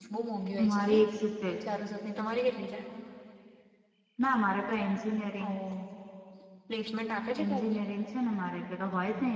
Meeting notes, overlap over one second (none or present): none